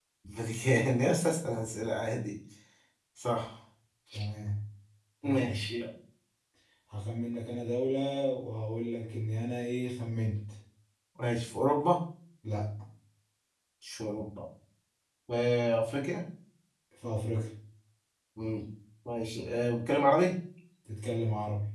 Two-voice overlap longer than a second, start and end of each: none

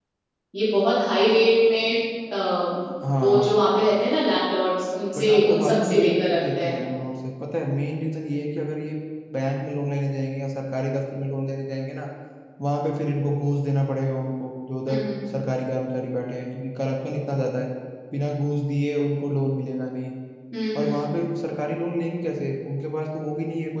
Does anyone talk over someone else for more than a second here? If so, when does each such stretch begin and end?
5.2-6.8

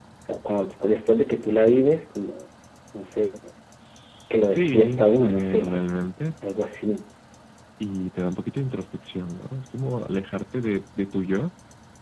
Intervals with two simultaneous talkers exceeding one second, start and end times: 4.3-5.7

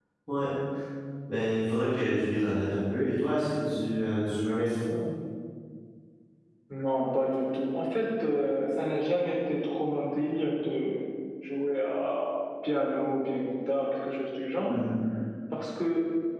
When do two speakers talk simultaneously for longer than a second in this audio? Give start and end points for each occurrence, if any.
none

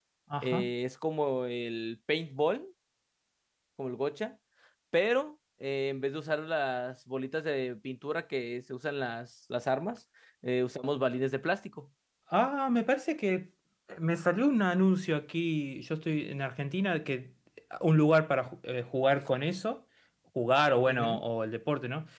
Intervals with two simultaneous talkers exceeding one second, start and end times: none

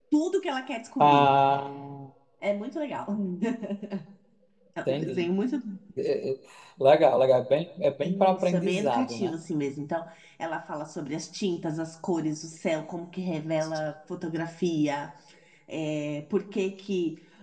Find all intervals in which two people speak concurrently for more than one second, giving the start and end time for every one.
8.0-9.3

